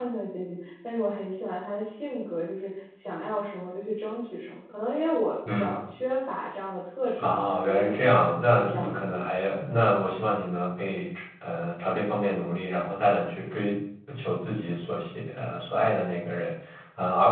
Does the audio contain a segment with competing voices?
Yes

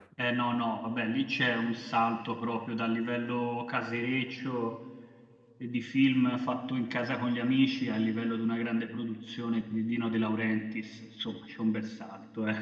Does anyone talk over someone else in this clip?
No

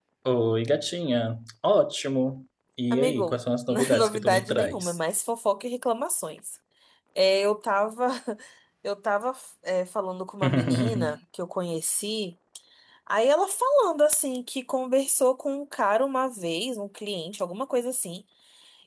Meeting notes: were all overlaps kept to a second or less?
No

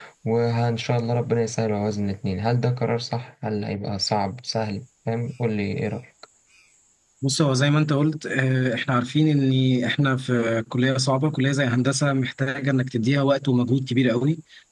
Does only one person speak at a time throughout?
Yes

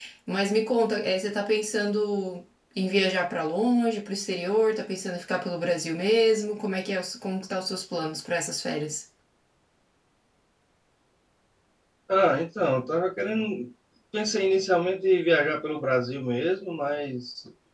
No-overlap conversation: Yes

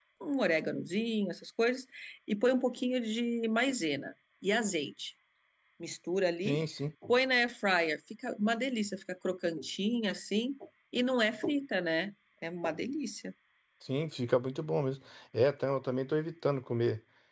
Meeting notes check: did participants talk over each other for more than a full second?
No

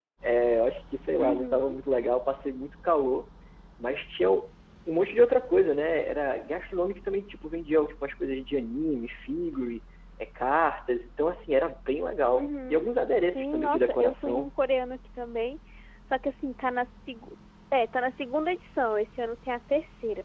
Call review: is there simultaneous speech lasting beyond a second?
Yes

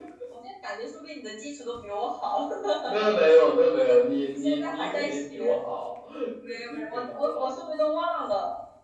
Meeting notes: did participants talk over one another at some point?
Yes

